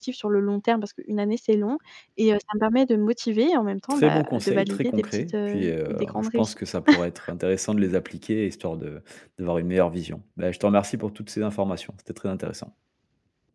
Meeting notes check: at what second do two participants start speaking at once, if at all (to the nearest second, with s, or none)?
4 s